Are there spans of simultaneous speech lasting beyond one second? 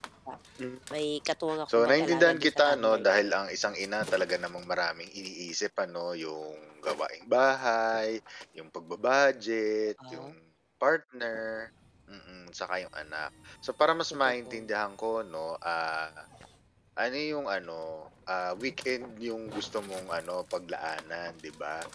Yes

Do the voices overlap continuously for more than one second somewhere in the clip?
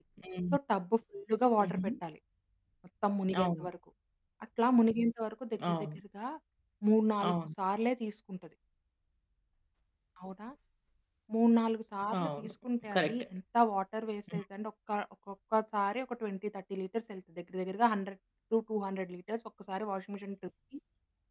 No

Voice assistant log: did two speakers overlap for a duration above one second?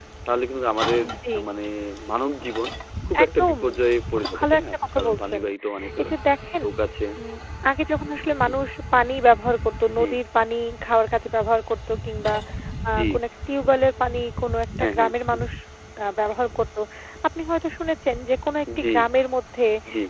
Yes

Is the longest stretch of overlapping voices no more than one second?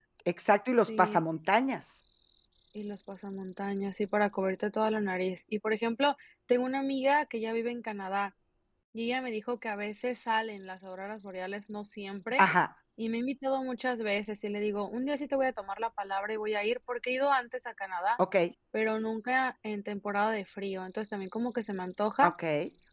Yes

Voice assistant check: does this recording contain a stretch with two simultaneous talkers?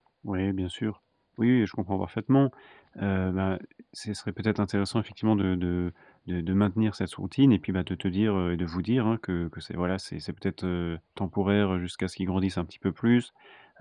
No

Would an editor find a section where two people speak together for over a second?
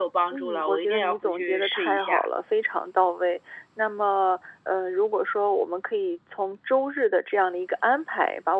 Yes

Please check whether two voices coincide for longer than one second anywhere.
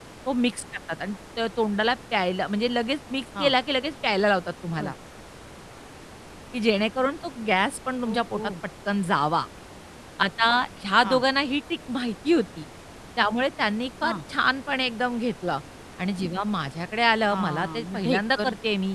Yes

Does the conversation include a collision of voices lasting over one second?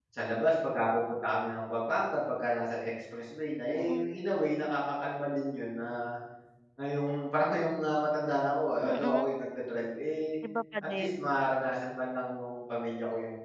No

